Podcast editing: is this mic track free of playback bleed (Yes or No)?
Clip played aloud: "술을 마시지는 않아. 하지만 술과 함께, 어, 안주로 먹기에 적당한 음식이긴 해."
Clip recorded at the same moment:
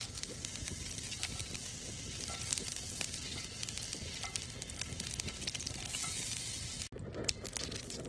Yes